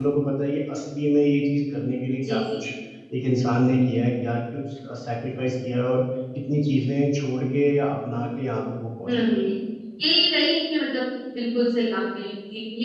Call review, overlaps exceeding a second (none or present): none